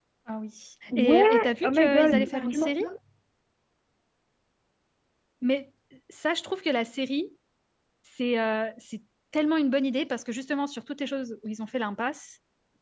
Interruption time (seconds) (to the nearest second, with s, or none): 1 s